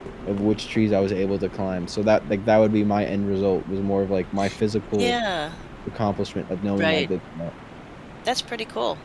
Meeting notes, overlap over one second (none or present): none